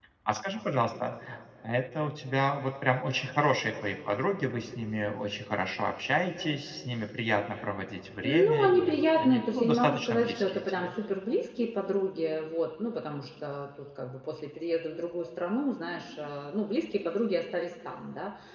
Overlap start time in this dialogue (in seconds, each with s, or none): 8.2 s